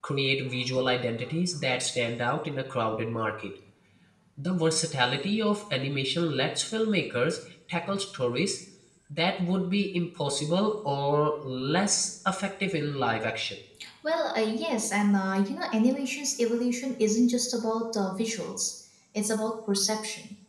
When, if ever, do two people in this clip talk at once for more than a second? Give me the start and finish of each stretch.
none

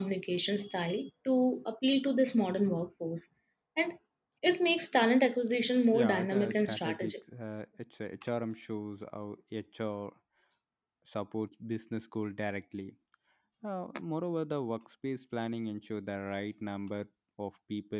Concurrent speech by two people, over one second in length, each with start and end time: 5.9-7.1

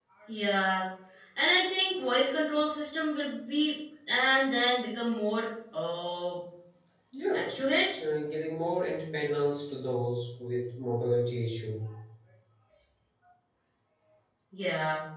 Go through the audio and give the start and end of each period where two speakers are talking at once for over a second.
none

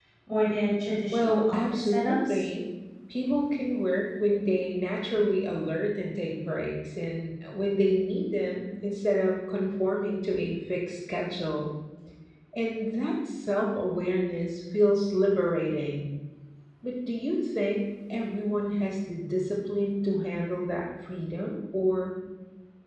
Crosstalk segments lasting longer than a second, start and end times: 1.1-2.5

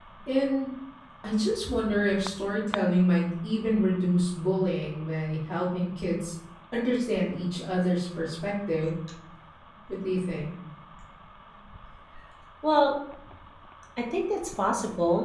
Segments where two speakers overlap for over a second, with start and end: none

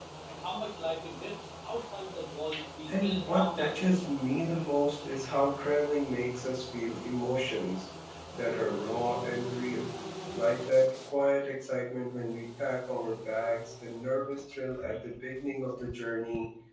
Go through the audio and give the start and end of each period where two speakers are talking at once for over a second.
2.9-4.1

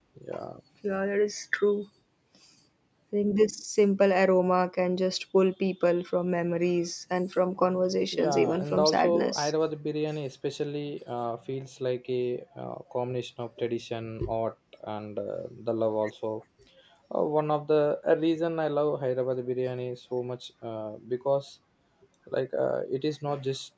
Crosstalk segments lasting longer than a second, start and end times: 8.2-9.5

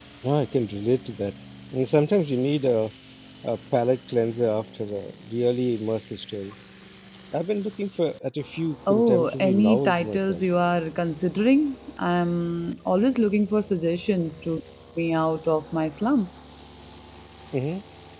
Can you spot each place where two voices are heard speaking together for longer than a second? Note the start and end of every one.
8.9-10.4

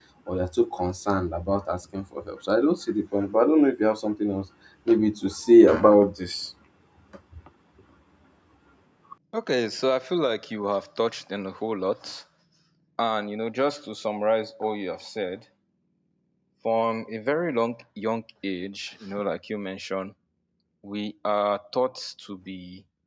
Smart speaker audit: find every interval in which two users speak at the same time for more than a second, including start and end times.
none

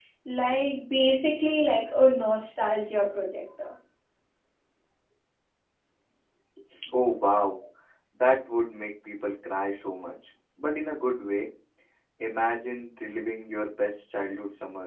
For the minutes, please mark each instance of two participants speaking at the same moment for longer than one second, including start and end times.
none

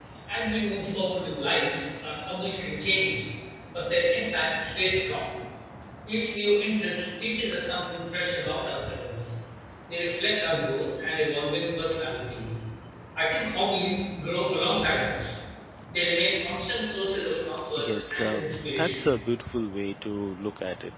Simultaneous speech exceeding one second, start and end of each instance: 17.8-19.1

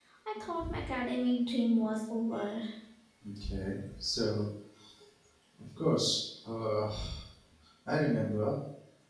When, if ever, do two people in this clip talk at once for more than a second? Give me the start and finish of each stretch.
none

